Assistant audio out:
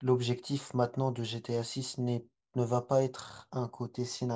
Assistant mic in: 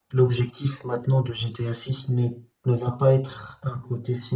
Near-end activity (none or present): none